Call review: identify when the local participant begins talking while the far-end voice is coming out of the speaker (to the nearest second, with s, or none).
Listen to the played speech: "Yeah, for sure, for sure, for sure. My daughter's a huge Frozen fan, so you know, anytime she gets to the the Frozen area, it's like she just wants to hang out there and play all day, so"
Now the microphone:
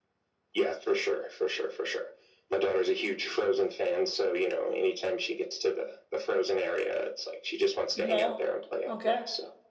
8 s